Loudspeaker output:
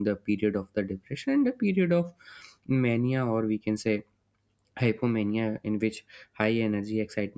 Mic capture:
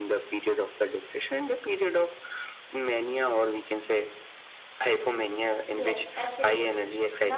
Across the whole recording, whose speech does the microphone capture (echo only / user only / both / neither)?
both